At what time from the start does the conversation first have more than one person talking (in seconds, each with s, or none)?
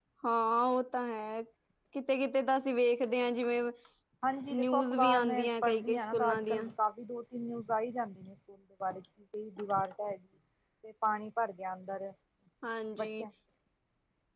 4.5 s